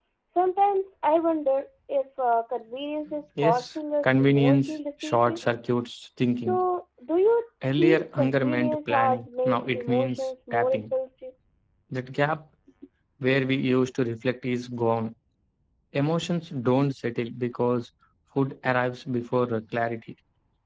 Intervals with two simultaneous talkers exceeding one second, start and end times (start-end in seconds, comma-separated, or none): 3.4-5.4, 7.8-10.9